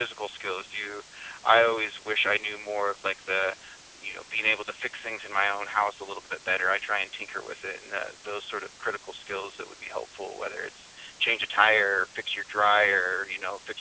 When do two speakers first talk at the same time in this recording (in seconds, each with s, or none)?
none